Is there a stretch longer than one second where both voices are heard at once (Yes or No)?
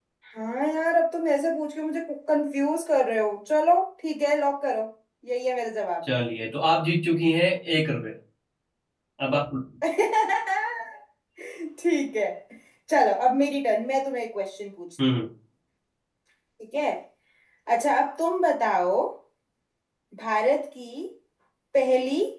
No